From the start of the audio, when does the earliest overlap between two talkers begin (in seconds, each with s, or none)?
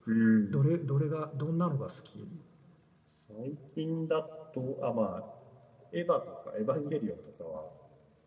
none